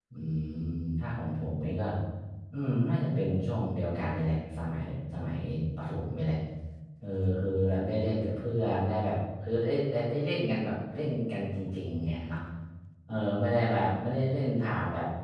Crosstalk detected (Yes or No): No